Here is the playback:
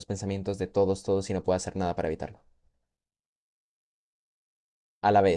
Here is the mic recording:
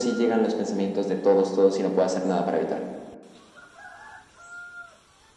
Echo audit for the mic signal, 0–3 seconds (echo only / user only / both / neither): echo only